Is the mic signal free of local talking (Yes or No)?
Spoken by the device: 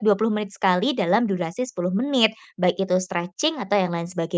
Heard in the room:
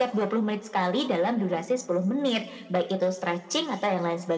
Yes